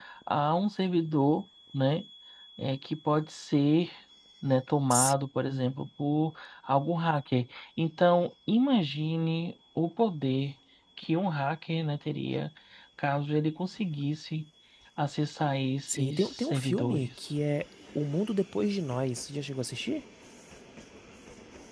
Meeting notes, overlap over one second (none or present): present